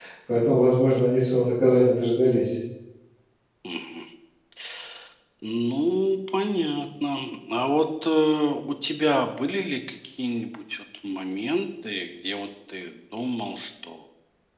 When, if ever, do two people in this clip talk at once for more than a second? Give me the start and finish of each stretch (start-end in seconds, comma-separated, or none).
none